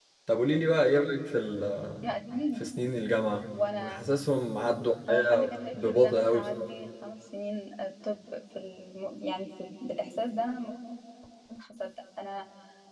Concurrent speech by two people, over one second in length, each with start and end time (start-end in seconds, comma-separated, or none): 5.1-6.4